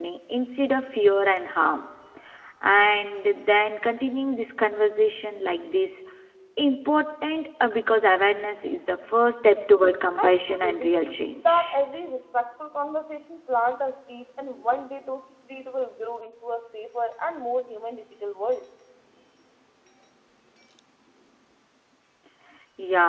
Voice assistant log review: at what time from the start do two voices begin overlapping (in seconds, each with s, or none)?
10.2 s